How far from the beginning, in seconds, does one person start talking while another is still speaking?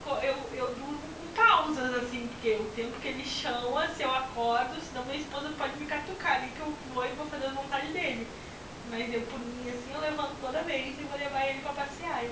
none

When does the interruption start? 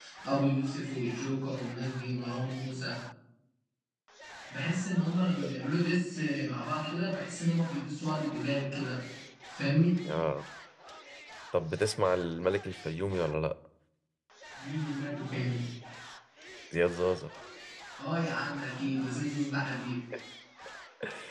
none

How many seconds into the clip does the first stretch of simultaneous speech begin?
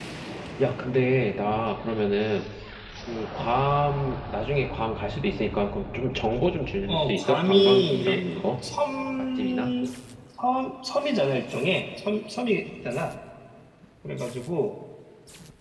6.9 s

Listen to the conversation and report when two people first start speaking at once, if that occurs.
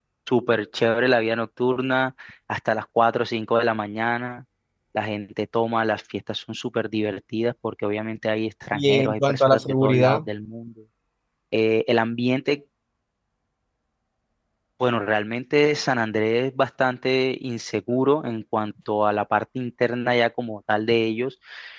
8.7 s

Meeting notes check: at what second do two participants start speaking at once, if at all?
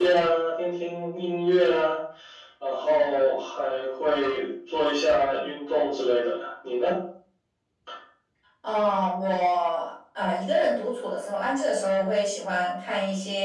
none

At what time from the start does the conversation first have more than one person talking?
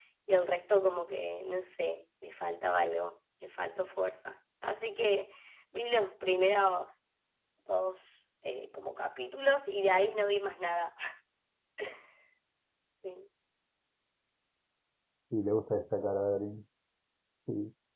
none

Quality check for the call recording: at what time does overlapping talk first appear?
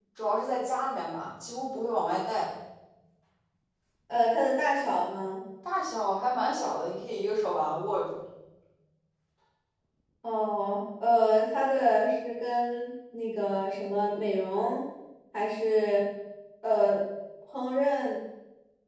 none

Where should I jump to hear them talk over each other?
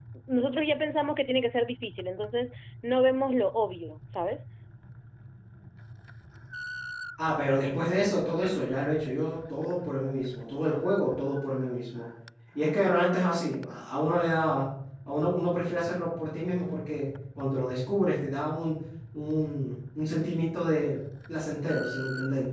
none

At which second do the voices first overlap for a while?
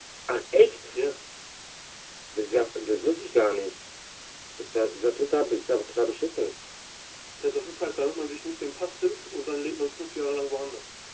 none

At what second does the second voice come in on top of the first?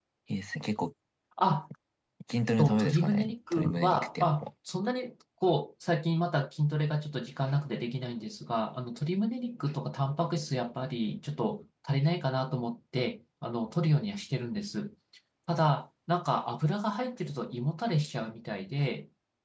2.6 s

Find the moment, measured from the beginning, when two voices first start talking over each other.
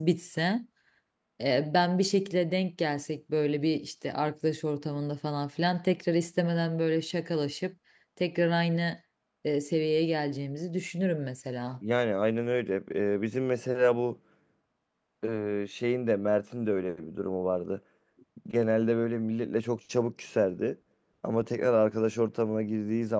none

